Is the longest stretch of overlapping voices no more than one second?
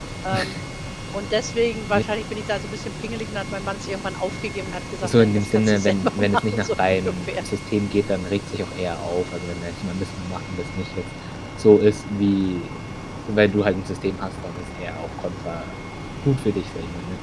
No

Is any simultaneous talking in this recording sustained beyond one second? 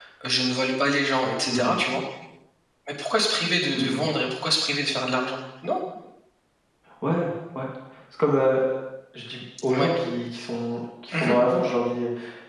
No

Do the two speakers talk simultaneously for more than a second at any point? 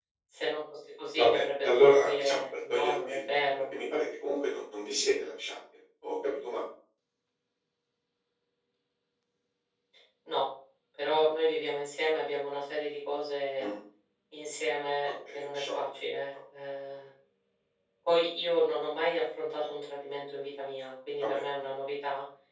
Yes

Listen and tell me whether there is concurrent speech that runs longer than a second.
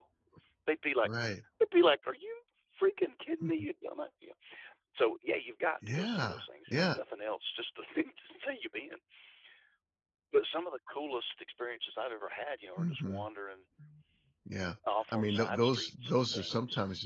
Yes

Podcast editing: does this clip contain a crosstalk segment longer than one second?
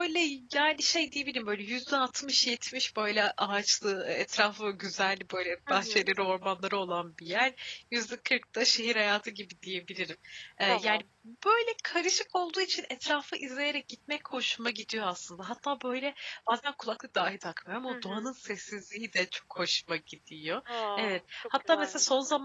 Yes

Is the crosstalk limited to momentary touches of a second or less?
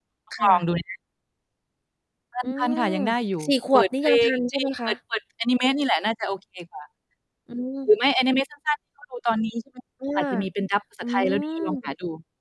No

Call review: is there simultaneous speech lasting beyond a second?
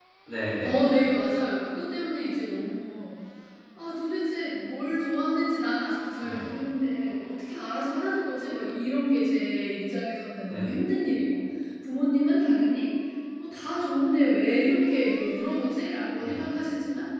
No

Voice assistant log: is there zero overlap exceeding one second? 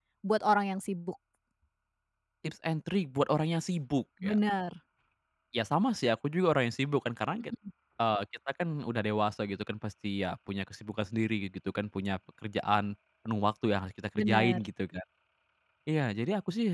Yes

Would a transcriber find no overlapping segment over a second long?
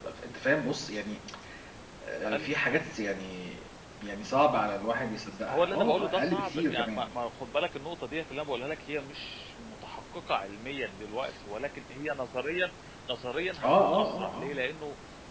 No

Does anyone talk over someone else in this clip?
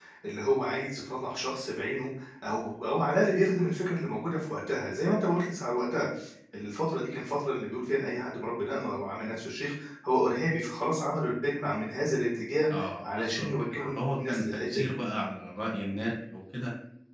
Yes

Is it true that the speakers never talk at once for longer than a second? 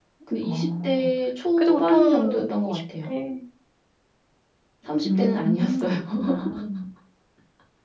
No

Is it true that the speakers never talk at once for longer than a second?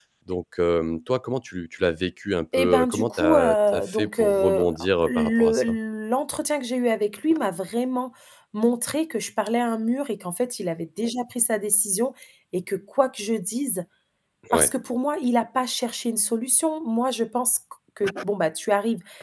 No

